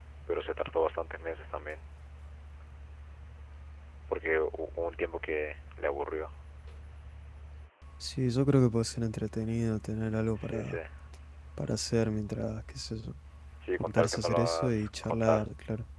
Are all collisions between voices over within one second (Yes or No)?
No